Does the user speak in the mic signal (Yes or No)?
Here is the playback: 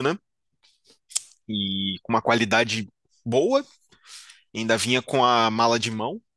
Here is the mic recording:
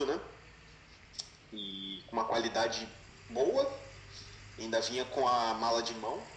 No